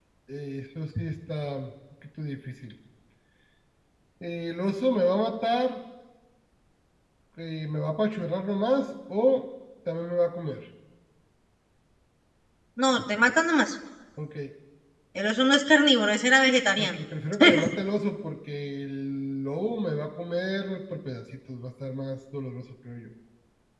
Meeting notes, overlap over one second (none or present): none